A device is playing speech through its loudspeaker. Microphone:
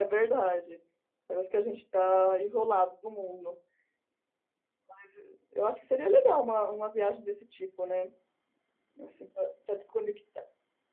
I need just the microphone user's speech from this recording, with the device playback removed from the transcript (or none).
none